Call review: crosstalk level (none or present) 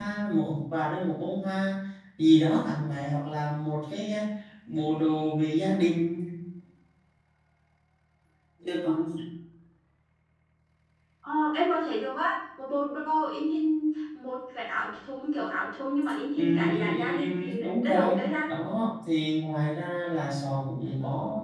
present